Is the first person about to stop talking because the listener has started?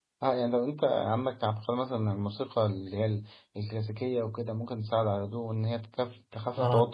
No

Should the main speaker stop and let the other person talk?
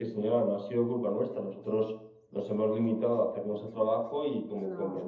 No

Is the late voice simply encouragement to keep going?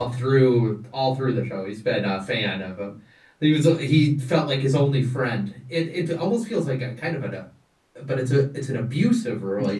No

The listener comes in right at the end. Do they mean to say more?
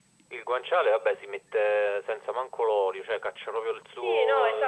Yes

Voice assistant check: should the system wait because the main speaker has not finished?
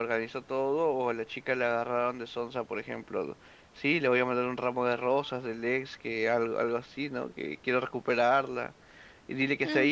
No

